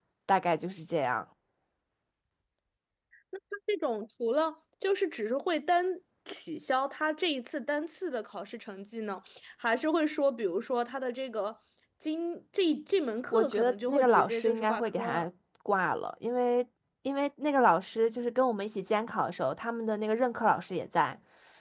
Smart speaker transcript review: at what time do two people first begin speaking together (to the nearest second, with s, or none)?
13 s